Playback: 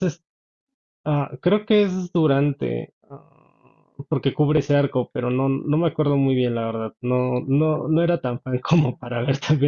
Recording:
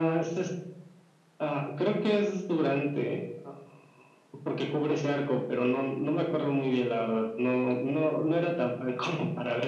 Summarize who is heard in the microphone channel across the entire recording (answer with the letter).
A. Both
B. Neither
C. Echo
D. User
C